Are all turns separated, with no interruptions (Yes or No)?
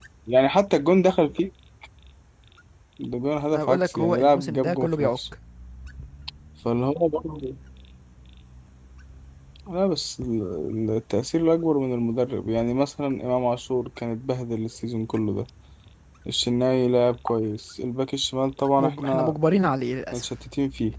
No